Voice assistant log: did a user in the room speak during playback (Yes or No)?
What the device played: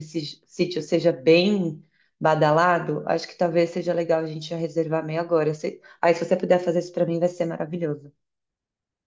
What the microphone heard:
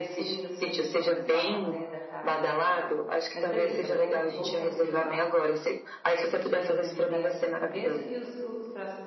Yes